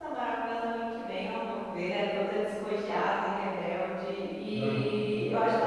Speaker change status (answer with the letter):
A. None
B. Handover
A